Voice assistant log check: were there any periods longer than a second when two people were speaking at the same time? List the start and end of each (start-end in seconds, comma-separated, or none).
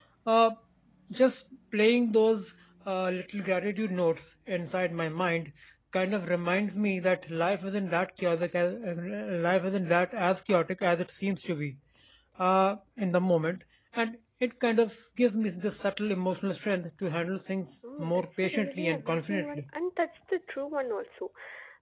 18.0-19.6